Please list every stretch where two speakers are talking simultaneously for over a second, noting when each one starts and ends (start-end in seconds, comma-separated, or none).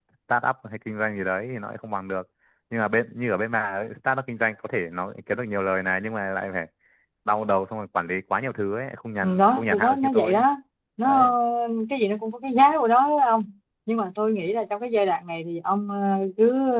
9.2-10.4